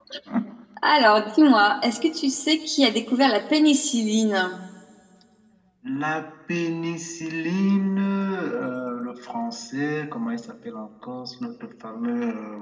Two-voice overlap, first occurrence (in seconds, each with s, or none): none